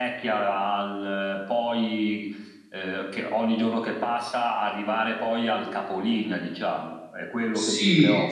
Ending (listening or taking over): taking over